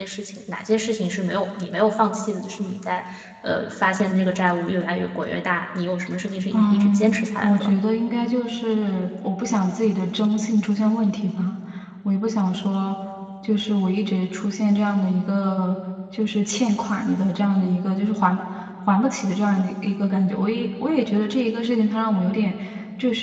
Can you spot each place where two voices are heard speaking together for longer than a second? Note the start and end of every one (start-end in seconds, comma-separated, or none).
6.5-7.7